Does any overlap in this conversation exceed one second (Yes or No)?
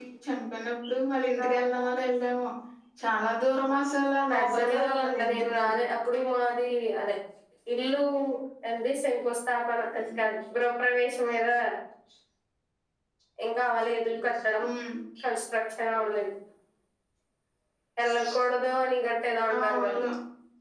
Yes